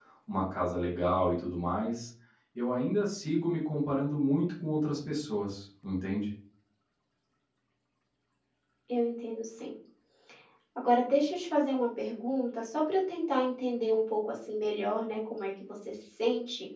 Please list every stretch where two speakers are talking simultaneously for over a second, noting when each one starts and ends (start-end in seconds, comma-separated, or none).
none